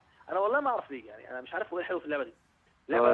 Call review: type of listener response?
taking over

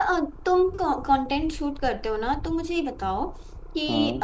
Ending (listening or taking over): listening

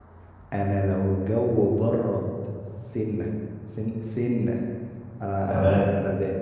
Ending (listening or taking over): listening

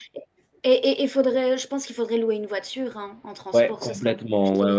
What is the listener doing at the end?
taking over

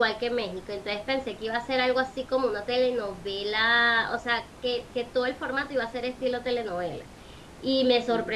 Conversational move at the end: listening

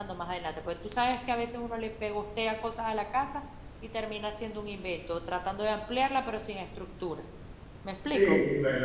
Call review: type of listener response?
taking over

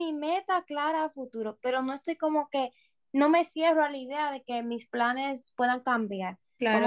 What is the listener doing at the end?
taking over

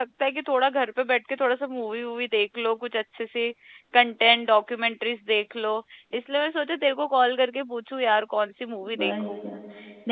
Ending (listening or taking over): taking over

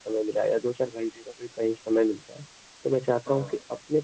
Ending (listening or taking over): listening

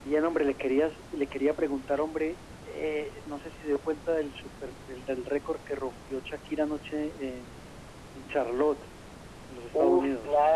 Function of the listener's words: taking over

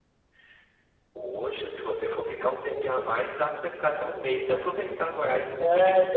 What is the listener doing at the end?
taking over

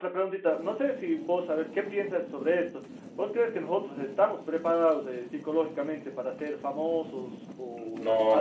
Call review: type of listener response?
taking over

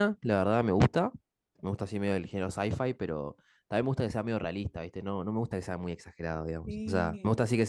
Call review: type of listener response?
listening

